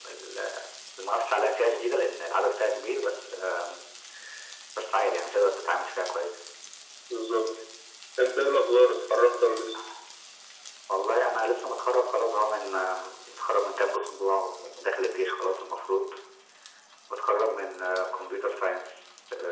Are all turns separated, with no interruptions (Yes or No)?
Yes